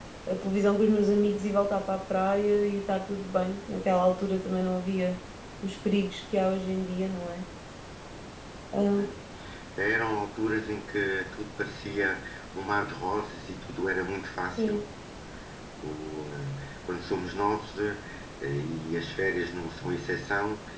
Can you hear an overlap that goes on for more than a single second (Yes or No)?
No